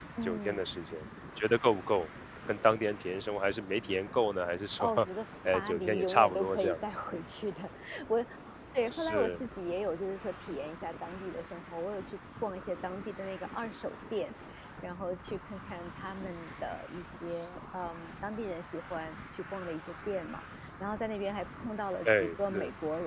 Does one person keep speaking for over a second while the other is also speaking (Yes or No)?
Yes